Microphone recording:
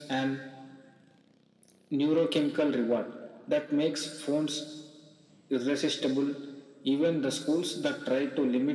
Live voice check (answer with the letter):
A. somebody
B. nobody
B